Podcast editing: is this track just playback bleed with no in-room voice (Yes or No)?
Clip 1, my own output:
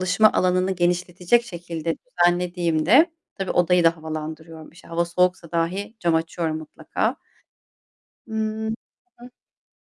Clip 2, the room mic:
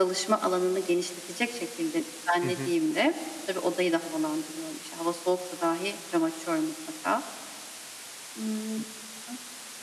No